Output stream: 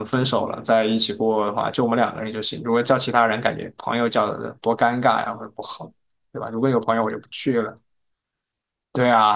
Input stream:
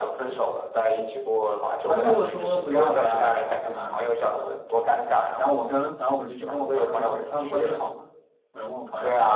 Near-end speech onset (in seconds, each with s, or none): 1.9 s